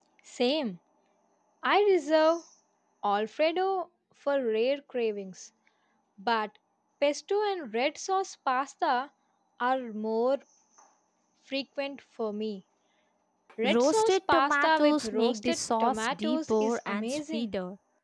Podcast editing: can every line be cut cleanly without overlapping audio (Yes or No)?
No